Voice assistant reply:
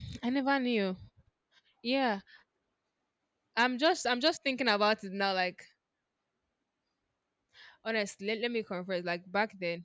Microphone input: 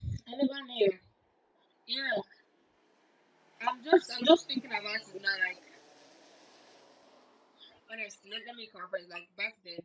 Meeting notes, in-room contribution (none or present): none